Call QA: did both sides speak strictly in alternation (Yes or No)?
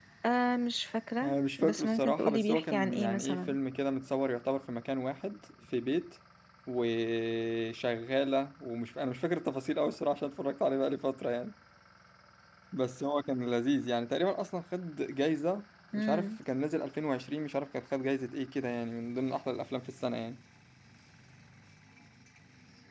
No